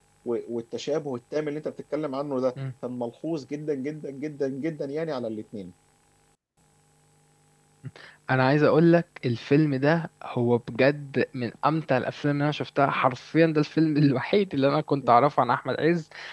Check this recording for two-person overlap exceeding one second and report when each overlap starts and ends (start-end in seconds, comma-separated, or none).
none